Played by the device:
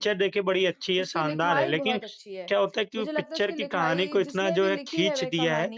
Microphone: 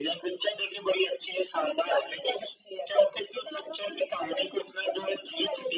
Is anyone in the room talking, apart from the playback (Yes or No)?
No